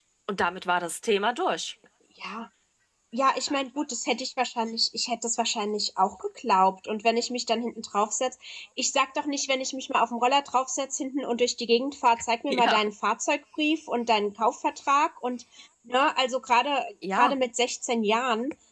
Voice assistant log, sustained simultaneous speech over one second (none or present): none